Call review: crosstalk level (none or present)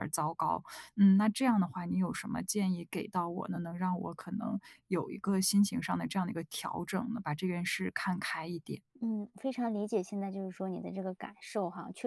none